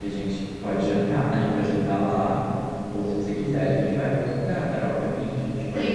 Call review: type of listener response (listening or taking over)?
taking over